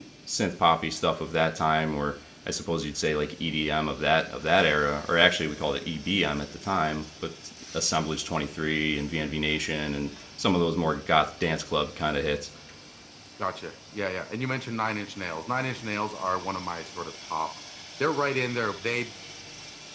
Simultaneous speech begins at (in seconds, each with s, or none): none